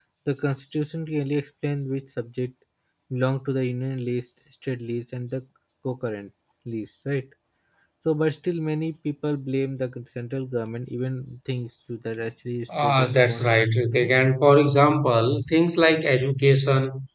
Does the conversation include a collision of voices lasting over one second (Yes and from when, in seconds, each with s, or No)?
Yes, from 12.7 s